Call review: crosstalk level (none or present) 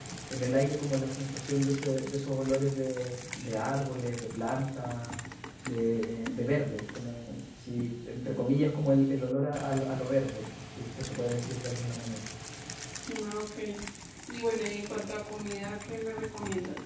none